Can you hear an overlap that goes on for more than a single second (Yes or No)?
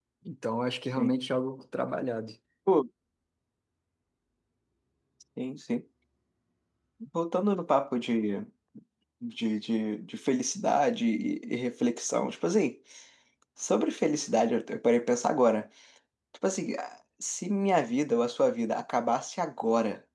No